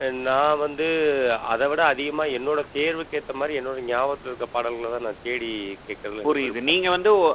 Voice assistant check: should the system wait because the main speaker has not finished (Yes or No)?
No